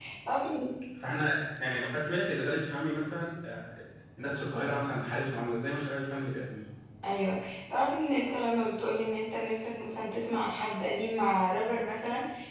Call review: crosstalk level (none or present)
none